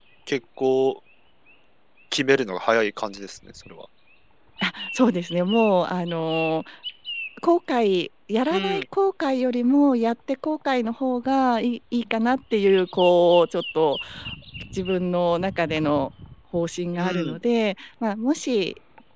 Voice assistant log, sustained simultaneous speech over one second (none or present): none